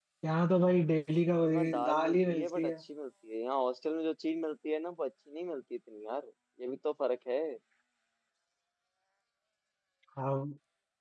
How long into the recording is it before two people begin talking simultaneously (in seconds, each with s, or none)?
1.4 s